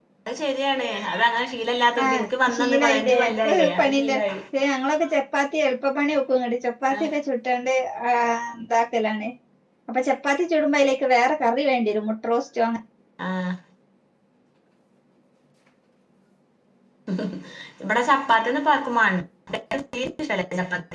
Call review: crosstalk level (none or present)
present